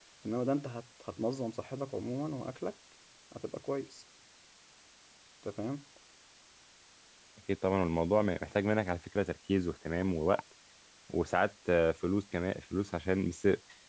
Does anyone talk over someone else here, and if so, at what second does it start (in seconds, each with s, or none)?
none